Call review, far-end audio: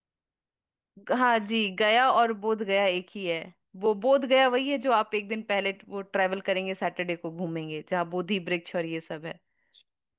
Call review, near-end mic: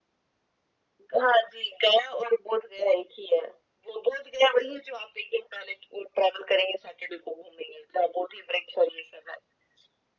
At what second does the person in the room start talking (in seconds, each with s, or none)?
none